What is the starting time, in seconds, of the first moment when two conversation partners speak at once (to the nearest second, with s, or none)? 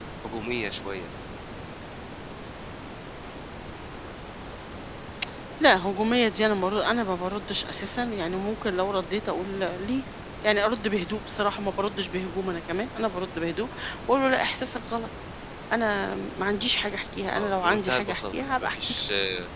17 s